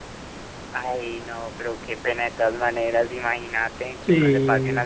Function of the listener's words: listening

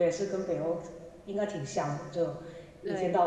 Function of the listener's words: listening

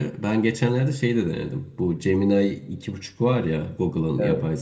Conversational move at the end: listening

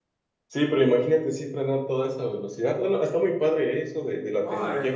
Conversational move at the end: taking over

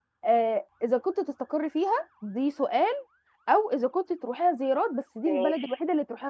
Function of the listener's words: listening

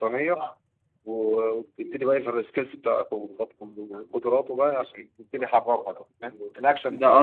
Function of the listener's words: taking over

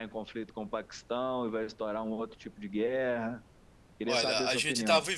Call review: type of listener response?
taking over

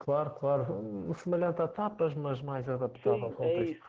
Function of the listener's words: taking over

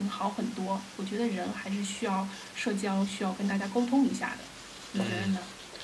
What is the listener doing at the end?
taking over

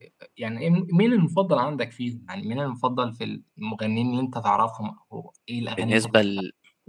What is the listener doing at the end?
taking over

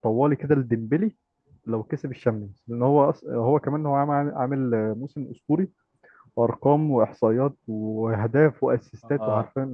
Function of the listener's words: taking over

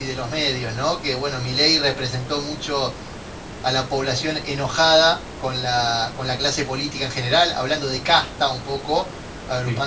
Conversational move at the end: listening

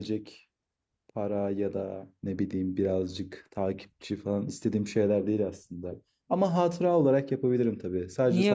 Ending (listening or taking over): taking over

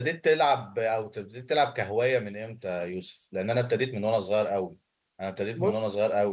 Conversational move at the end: listening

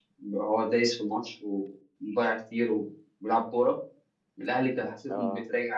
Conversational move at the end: listening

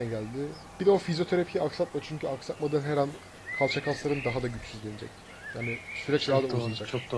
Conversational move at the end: taking over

